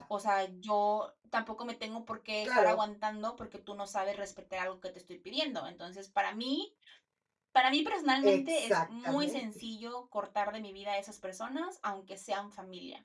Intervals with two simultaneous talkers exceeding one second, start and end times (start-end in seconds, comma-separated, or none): 8.2-9.4